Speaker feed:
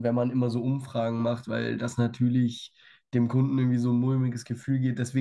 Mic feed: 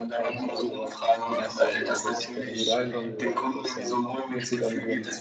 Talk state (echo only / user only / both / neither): both